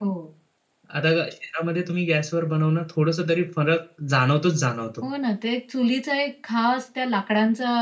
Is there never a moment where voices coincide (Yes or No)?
Yes